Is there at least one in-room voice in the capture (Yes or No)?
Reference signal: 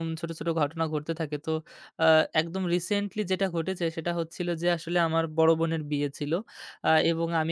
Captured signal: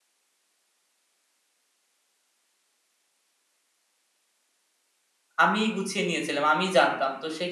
Yes